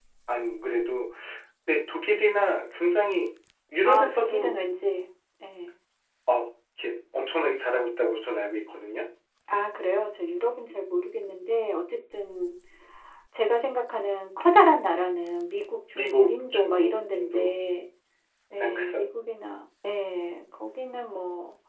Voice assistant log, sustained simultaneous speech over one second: present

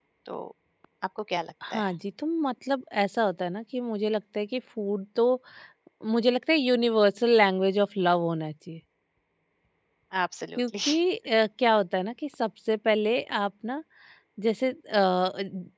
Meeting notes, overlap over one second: none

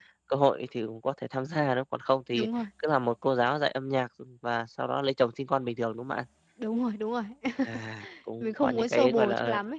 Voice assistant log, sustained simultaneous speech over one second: present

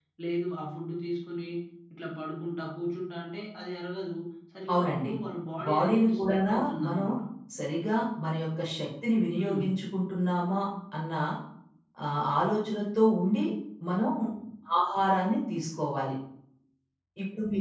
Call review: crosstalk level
present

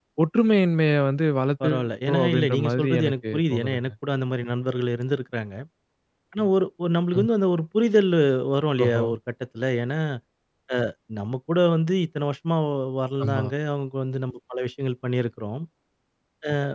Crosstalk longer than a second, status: present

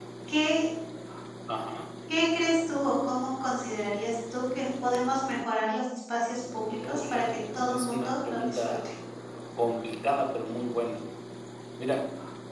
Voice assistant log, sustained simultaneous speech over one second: present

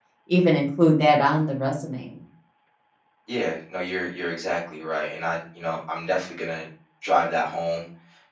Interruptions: none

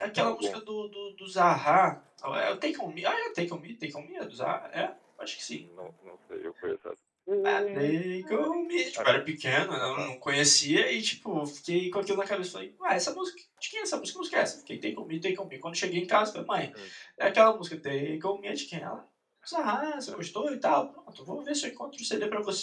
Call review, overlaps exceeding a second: none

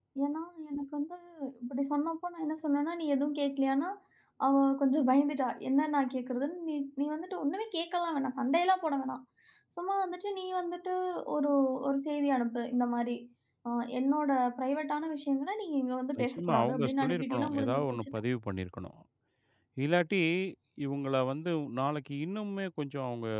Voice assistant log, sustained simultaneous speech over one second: present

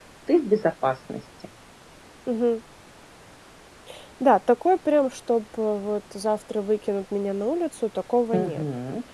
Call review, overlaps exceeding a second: none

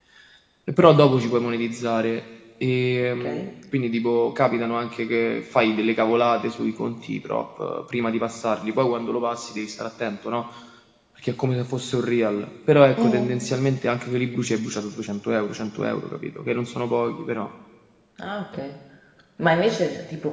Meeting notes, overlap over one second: none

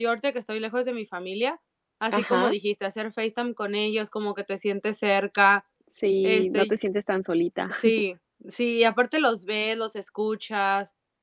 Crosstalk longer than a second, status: none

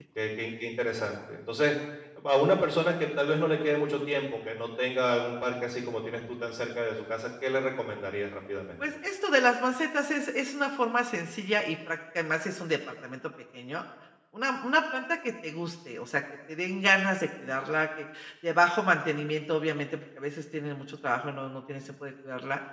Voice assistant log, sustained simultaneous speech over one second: none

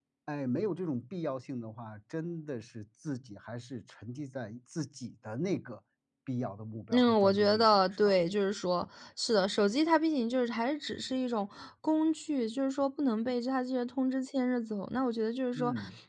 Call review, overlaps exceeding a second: present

